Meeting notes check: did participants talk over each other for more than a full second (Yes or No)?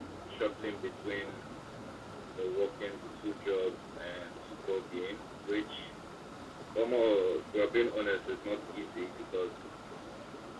No